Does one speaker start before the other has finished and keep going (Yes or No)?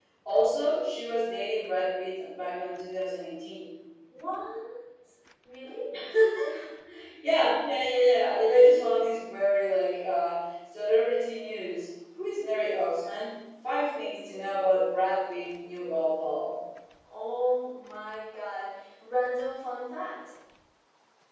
No